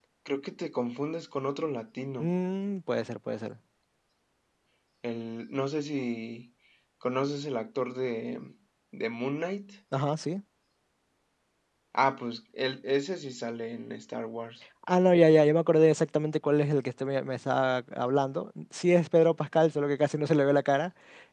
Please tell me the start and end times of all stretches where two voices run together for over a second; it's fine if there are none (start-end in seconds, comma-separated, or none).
none